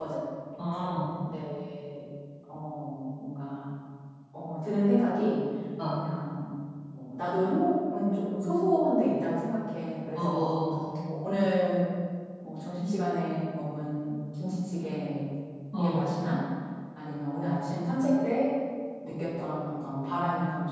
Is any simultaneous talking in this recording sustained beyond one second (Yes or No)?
No